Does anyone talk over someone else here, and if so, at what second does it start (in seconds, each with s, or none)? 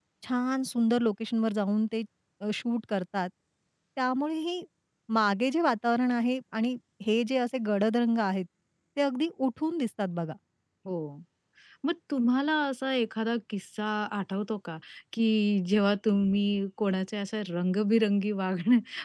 none